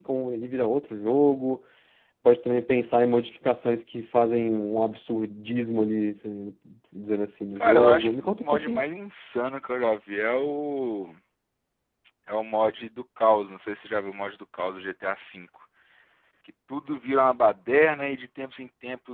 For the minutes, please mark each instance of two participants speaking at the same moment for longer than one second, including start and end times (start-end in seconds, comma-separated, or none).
7.5-8.8